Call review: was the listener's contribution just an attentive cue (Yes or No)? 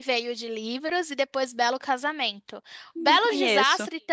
Yes